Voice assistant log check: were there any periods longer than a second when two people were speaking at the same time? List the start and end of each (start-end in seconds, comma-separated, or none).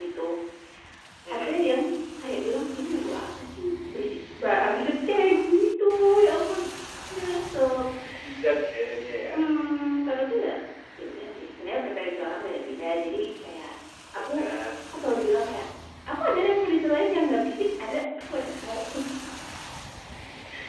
none